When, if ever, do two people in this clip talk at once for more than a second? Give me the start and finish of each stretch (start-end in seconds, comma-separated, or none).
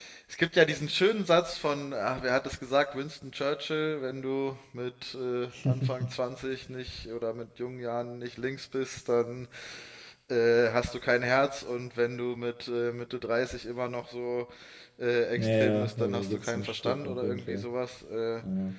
15.4-17.7